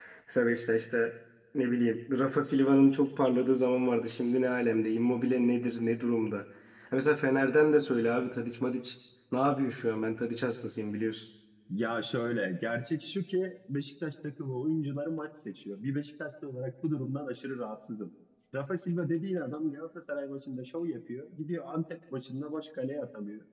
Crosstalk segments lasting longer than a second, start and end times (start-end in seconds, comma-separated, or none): none